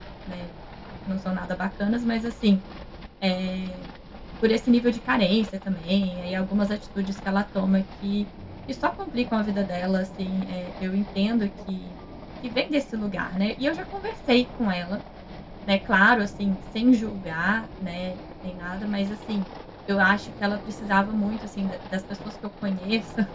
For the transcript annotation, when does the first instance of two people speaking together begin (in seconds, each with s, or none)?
none